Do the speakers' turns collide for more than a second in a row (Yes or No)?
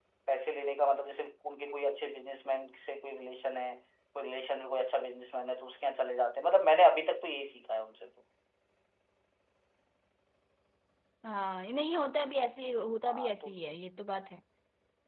No